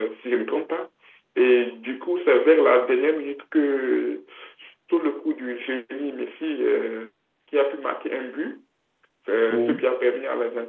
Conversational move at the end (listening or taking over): listening